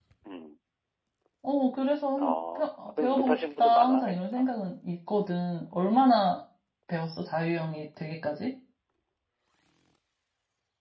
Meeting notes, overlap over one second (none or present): present